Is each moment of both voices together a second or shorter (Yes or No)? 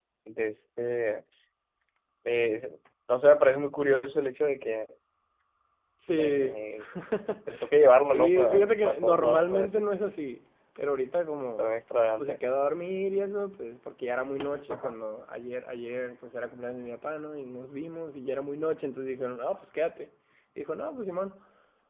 No